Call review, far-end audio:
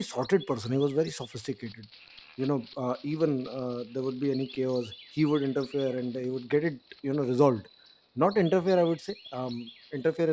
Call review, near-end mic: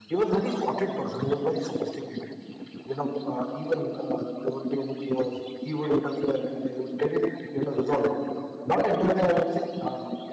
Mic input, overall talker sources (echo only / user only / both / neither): echo only